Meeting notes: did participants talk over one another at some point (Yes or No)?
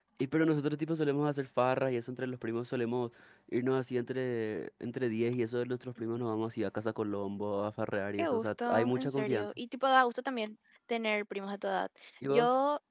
Yes